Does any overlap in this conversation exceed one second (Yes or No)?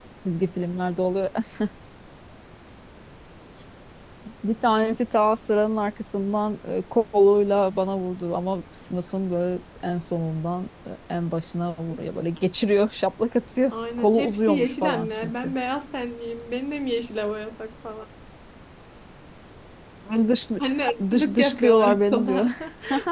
Yes